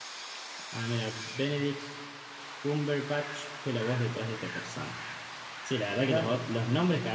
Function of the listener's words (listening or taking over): listening